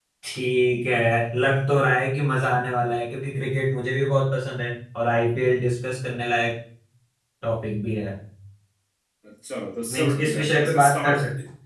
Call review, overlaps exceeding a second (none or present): present